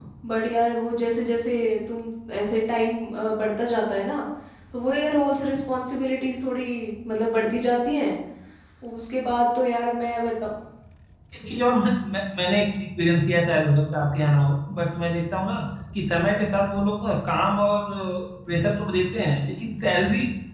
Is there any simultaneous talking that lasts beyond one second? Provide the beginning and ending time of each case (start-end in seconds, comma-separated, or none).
none